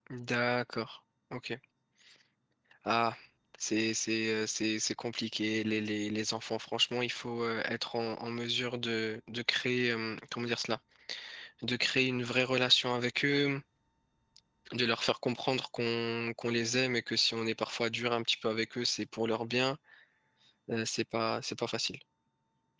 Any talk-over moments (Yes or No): No